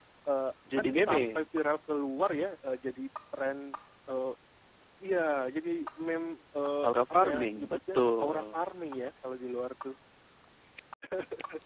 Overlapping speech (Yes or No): Yes